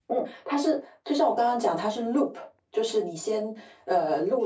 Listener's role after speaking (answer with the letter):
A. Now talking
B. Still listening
B